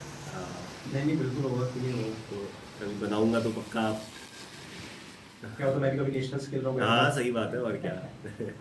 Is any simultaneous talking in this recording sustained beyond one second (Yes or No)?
No